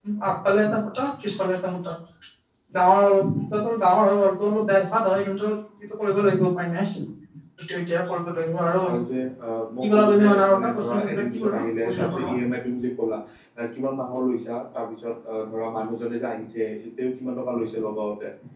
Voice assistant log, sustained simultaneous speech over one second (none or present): present